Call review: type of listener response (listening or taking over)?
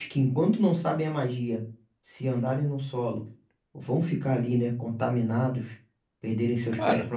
listening